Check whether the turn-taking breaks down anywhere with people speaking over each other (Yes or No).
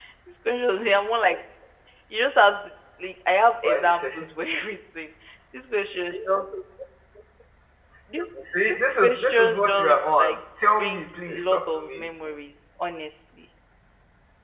Yes